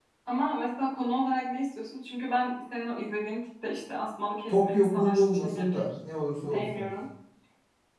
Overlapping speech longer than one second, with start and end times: 4.5-5.8

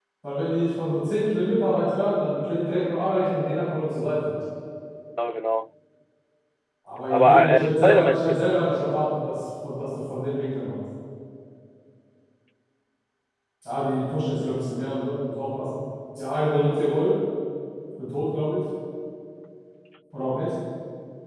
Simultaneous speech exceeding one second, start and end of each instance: 7.1-8.4

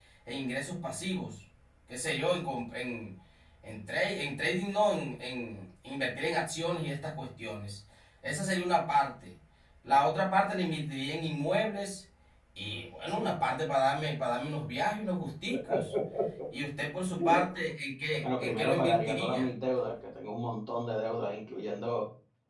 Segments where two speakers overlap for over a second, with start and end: 18.2-19.5

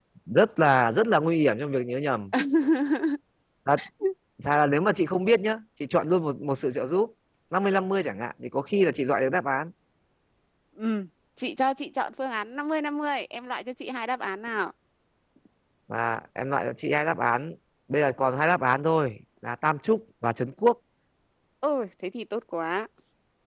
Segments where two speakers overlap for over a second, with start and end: none

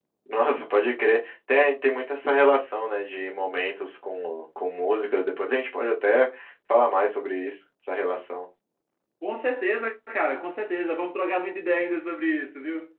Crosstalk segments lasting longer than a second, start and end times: none

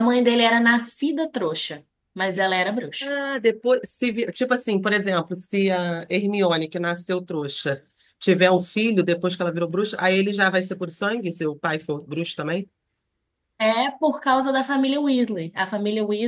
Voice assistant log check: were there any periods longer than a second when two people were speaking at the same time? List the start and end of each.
none

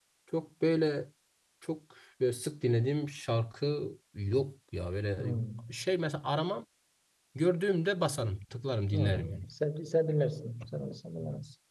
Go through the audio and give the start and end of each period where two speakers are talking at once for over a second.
none

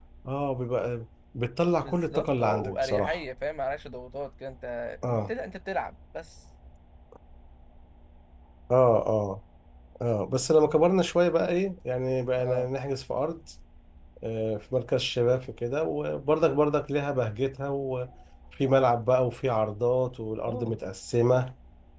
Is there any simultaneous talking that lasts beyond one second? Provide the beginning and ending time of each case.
1.8-3.2

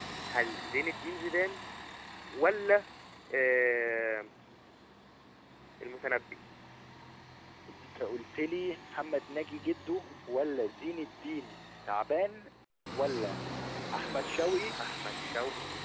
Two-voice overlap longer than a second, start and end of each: none

